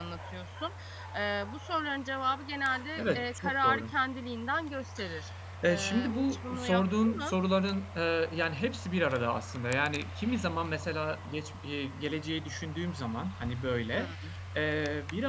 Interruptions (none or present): present